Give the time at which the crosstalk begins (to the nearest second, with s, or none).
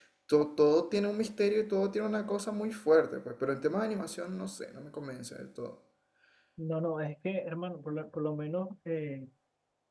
none